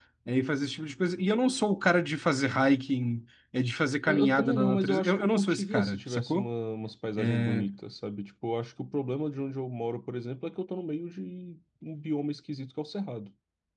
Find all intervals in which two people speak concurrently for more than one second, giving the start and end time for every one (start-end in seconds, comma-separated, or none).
4.1-6.5